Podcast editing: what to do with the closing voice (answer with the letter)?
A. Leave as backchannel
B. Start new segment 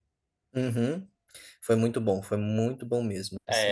B